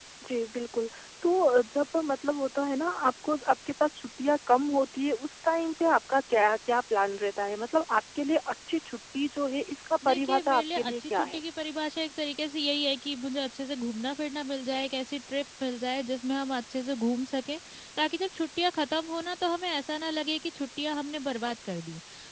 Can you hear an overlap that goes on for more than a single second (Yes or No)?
Yes